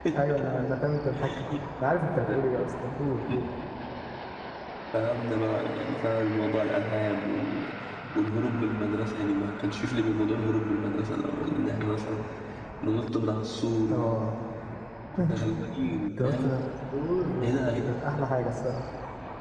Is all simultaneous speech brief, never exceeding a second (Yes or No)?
Yes